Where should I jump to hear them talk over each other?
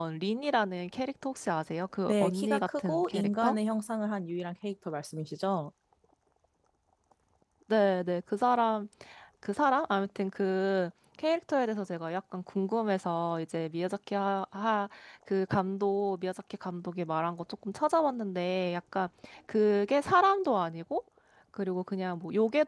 2.1 s

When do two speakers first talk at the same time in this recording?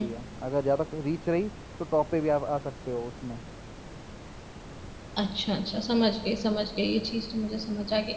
none

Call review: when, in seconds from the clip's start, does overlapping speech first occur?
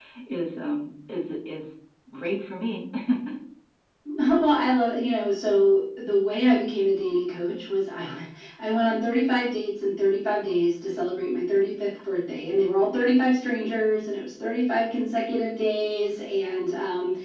none

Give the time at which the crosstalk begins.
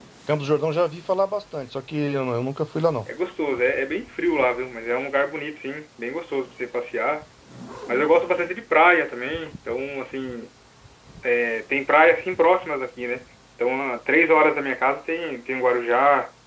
none

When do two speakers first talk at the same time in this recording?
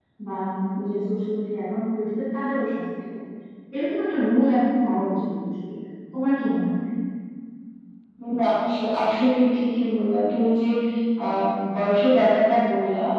none

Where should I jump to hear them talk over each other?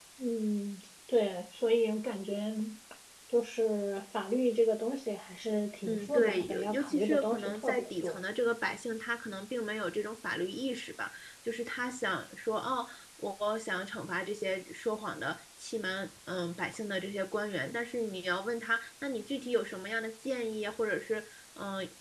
5.8 s

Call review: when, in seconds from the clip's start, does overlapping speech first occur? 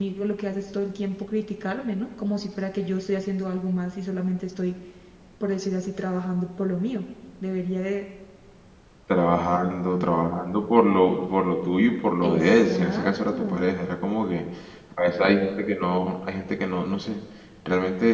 12.2 s

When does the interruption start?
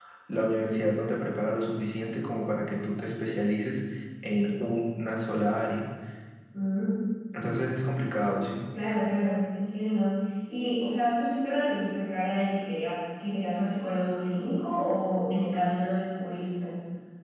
none

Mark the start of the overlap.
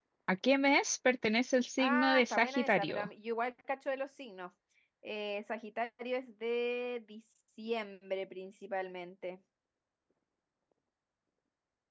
1.8 s

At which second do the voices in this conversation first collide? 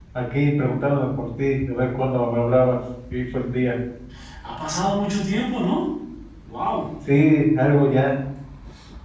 none

